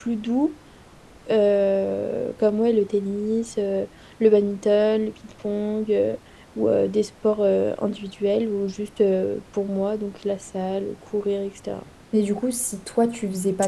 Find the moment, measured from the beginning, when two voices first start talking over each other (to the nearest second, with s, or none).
none